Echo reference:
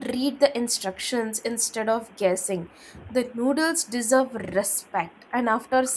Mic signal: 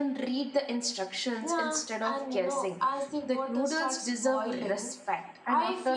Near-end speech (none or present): present